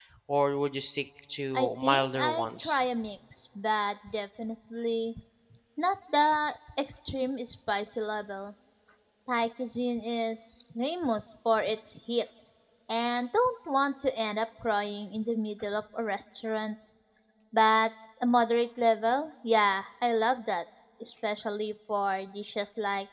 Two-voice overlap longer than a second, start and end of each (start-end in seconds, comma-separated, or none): 1.5-2.8